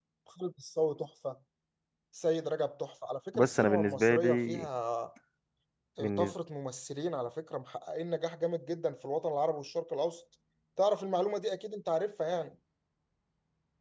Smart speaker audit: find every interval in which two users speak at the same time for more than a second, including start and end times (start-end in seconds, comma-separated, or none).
3.3-4.7